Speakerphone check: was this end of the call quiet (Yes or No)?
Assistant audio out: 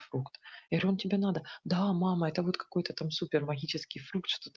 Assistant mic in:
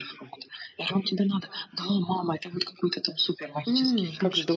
No